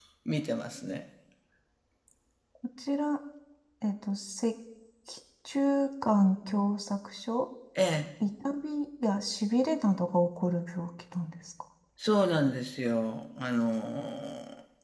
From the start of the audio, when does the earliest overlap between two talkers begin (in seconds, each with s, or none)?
none